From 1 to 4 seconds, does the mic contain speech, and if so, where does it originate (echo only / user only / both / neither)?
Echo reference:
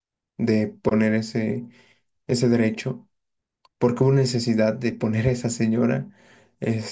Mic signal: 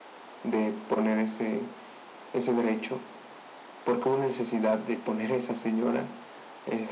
echo only